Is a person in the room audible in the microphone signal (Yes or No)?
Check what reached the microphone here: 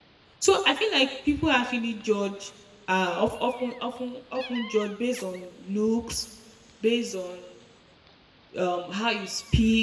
Yes